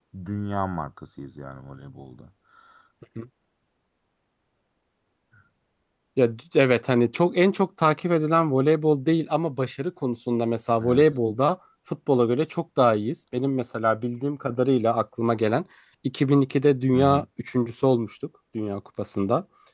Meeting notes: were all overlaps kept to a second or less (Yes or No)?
Yes